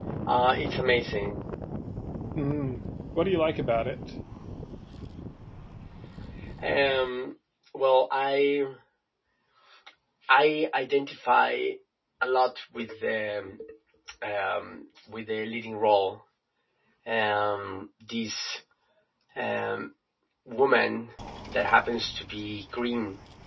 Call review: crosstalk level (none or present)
none